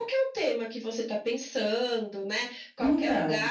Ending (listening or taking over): listening